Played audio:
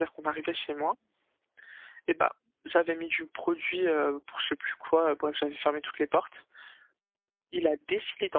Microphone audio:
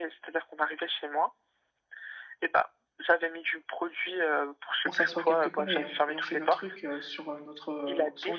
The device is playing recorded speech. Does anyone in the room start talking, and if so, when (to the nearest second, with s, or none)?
5 s